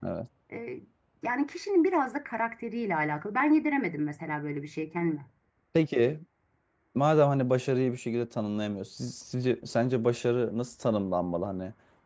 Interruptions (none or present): none